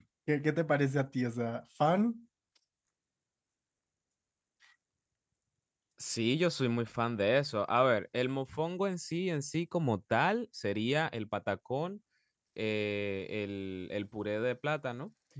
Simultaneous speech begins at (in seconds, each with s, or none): none